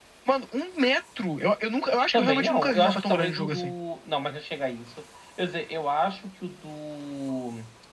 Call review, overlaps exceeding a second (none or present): present